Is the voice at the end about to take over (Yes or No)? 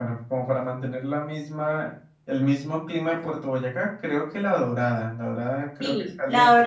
Yes